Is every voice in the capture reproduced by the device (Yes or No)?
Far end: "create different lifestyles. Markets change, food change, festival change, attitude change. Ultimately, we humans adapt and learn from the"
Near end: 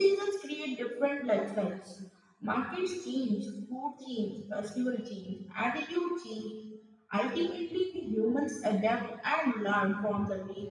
Yes